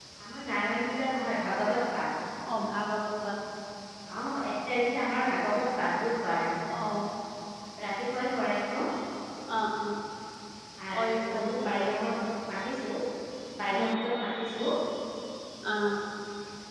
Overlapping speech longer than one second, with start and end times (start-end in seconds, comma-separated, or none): 11.0-12.3